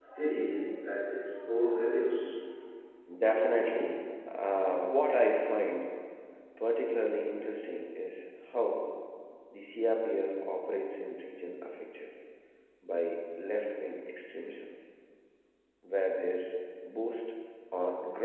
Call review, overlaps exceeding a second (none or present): none